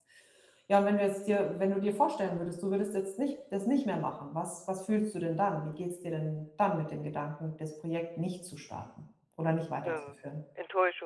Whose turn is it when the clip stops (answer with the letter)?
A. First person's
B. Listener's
B